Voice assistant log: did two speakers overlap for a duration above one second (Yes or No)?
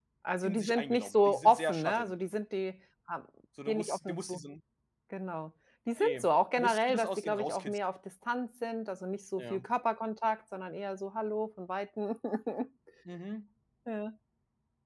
Yes